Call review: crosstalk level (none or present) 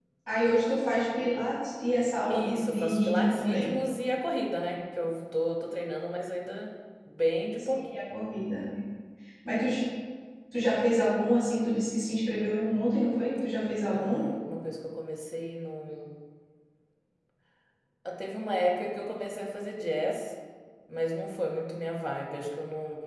present